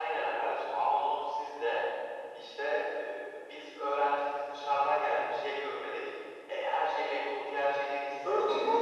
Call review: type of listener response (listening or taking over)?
taking over